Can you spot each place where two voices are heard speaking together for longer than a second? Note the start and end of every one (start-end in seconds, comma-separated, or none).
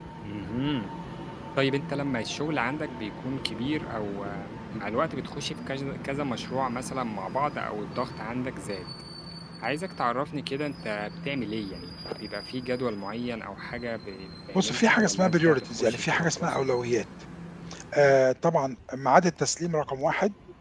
14.5-16.6